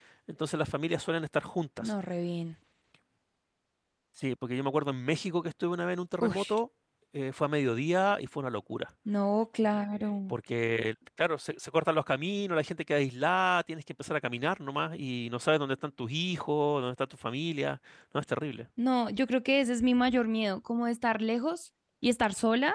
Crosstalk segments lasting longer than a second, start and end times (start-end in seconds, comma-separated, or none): none